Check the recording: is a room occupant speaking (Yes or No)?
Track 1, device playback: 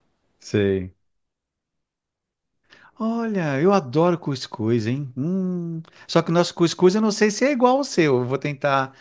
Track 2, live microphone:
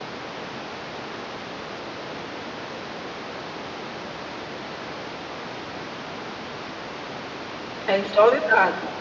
Yes